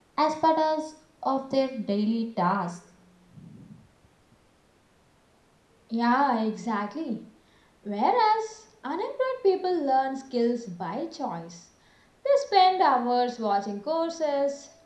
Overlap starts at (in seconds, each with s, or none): none